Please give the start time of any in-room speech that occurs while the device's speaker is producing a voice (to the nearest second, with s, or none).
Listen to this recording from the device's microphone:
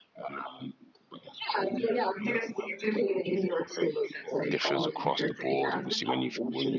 4 s